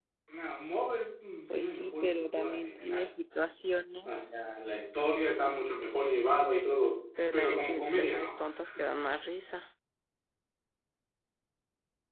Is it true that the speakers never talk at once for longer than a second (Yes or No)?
No